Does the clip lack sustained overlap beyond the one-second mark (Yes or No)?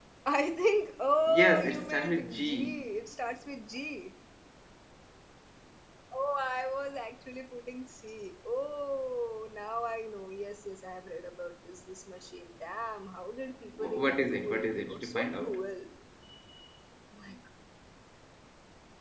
No